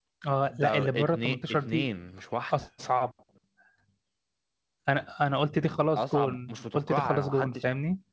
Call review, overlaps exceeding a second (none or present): present